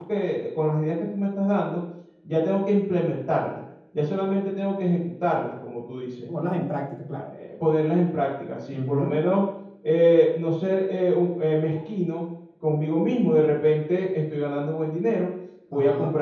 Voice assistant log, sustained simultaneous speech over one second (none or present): none